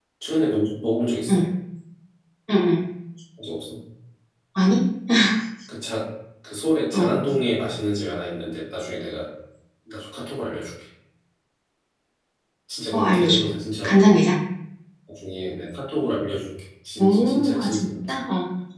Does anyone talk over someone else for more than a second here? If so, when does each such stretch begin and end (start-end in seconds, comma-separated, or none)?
17.0-18.2